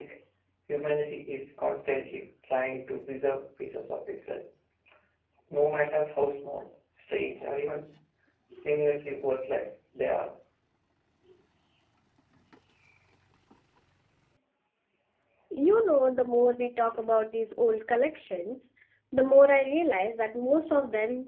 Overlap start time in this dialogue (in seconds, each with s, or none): none